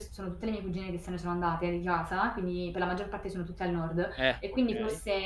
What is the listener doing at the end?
listening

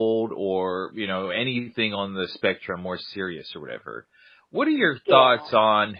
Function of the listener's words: listening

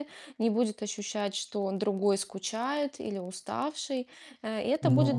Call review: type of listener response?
listening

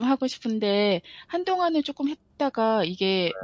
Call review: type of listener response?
listening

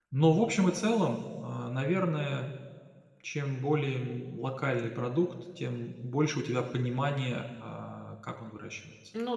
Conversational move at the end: taking over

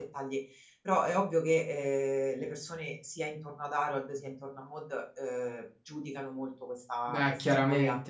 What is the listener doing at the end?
taking over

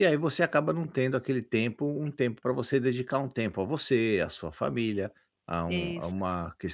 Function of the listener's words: listening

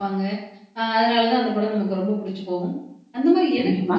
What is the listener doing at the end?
listening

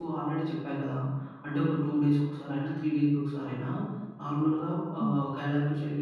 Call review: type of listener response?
listening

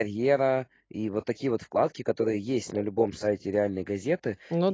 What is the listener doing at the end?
listening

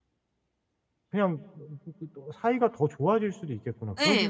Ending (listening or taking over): taking over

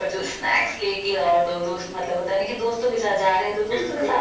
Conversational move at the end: listening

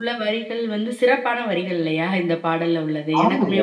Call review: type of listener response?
taking over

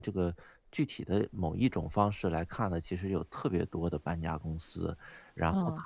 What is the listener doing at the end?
listening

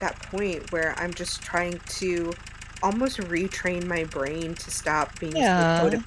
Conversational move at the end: listening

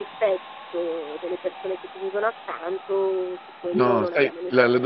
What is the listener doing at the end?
taking over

